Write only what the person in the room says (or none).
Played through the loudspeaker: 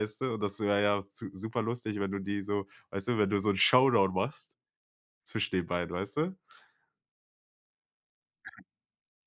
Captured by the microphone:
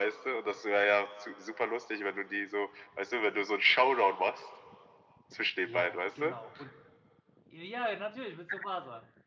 Ja, genau und ja, natürlich mit Tsubasa.